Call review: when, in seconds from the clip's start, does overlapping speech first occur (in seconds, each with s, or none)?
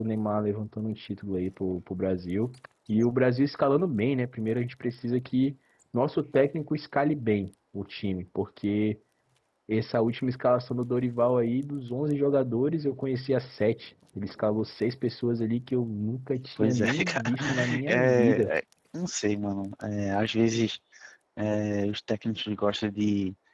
16.6 s